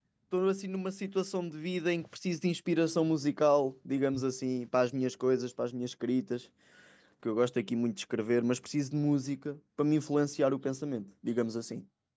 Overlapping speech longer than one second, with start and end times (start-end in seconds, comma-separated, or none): none